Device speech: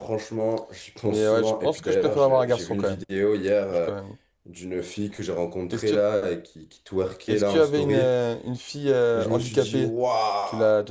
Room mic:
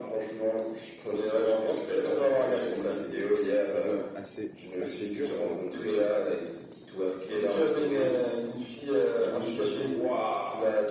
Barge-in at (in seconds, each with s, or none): 2.4 s